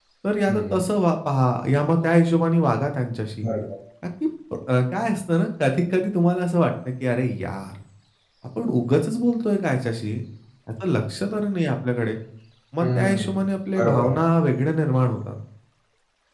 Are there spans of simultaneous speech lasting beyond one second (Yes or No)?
Yes